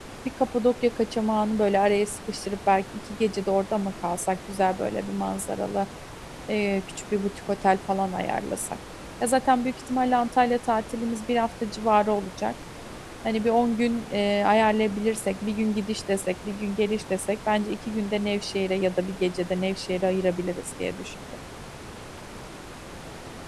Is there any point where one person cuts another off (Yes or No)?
No